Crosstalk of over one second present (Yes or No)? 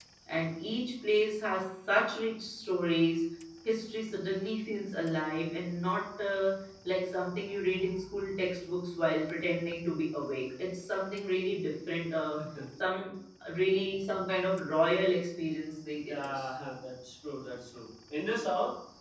No